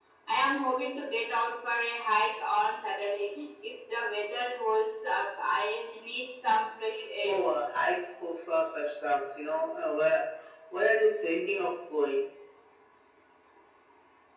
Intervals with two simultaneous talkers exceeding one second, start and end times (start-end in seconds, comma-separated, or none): none